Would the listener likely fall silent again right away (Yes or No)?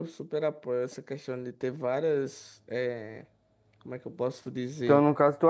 No